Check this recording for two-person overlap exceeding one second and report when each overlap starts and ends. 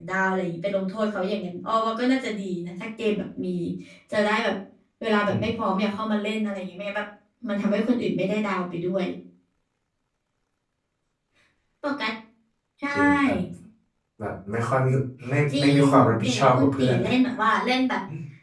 15.5-16.9

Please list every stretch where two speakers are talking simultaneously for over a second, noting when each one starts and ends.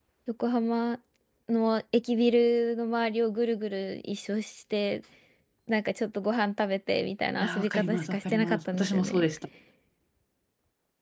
7.4-9.2

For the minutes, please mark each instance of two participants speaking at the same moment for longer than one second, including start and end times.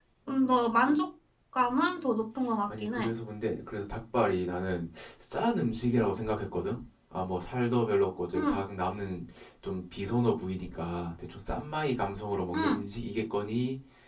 none

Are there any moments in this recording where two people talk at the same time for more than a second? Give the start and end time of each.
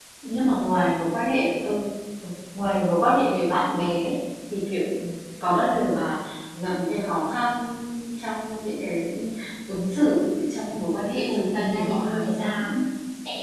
11.3-12.8

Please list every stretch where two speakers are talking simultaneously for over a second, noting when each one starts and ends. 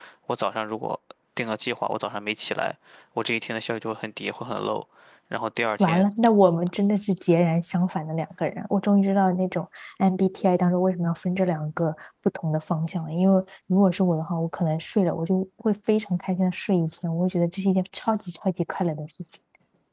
none

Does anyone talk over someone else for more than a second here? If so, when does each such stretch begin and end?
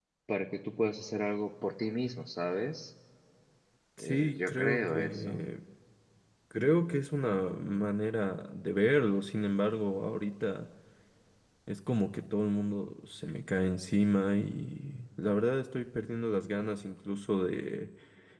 4.0-5.4

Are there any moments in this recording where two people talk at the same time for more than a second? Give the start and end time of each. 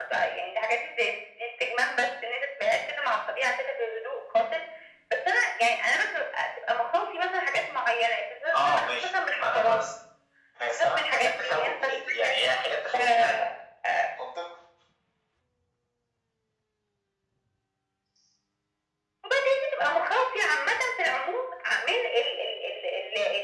8.5-9.8, 10.7-12.0

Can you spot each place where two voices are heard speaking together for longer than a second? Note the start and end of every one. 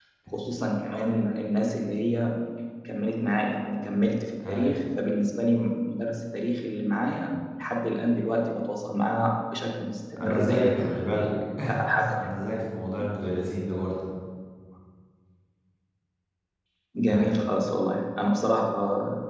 none

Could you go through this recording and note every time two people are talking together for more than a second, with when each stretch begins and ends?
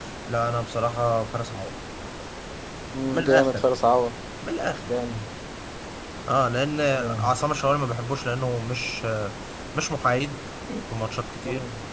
none

